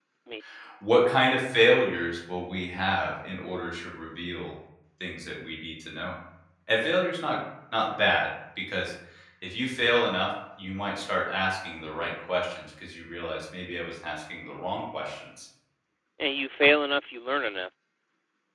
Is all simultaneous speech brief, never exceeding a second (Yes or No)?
Yes